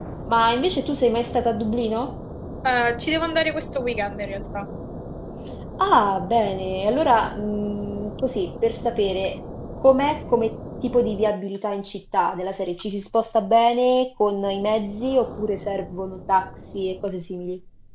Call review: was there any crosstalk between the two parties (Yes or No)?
No